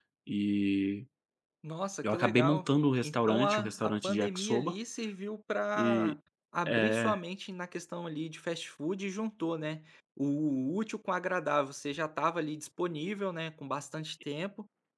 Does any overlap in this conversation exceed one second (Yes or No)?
Yes